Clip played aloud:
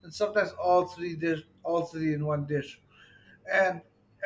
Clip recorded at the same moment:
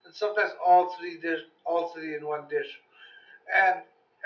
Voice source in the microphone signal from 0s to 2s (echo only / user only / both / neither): echo only